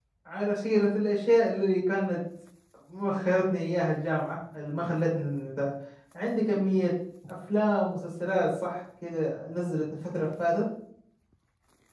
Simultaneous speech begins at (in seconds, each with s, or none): none